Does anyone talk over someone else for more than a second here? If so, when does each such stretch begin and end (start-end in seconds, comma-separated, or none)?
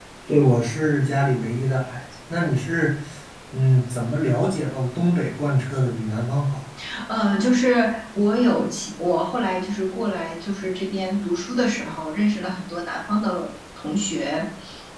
none